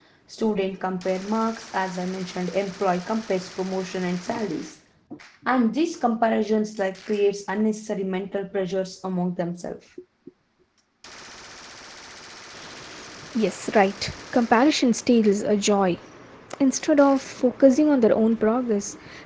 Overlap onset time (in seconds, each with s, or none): none